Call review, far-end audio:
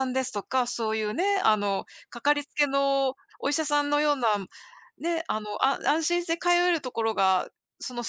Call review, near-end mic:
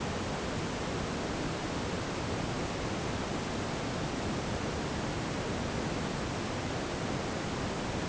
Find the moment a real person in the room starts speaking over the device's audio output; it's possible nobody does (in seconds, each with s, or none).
none